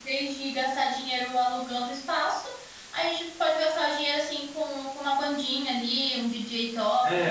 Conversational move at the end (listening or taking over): taking over